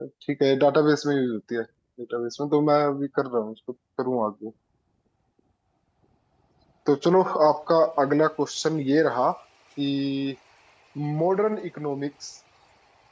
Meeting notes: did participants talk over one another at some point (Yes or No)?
No